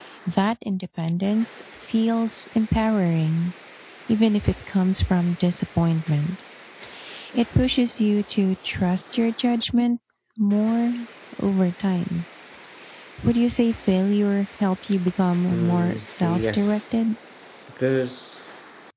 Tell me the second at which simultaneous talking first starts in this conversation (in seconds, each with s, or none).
15.5 s